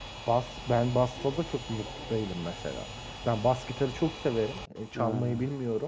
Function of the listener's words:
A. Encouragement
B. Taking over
A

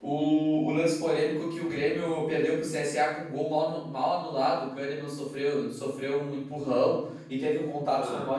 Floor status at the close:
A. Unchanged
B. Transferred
A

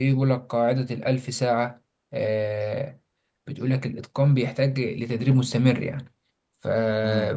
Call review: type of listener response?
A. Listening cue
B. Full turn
A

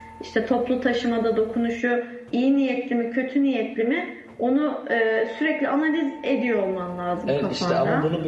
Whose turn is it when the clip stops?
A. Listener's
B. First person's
A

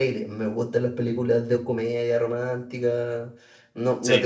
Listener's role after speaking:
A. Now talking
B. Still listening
B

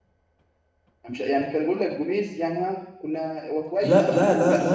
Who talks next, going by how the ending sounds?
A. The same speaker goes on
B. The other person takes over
B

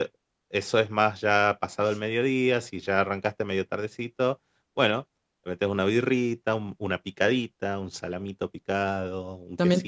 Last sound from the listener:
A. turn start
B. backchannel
A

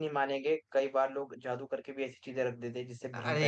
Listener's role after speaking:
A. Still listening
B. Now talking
B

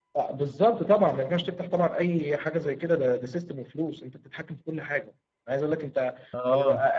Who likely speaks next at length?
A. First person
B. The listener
A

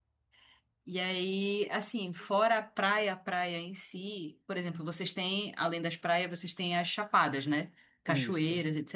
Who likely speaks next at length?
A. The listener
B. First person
B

